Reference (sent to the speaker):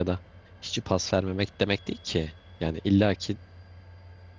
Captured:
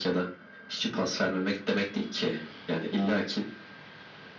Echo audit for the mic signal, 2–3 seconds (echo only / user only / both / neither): echo only